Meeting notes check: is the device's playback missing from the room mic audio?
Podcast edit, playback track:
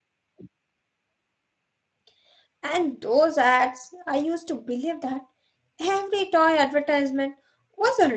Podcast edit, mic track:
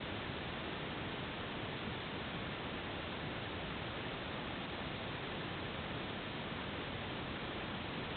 Yes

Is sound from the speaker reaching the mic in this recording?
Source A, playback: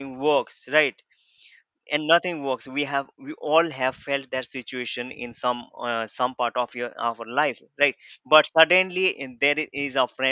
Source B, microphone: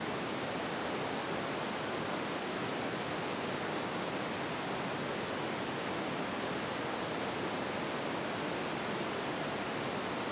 No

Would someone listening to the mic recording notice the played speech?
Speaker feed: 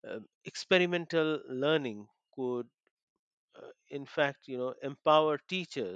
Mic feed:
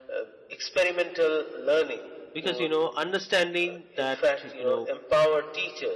Yes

